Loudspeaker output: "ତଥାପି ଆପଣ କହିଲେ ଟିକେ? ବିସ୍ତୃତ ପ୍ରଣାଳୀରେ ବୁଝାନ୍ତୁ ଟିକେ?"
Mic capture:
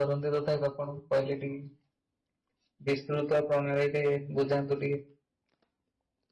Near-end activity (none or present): none